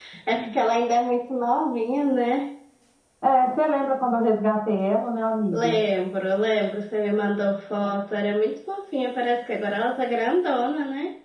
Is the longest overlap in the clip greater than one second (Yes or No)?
No